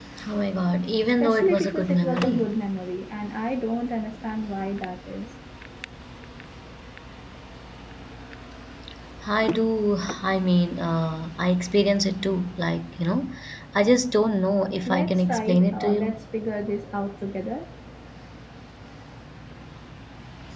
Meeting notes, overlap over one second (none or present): present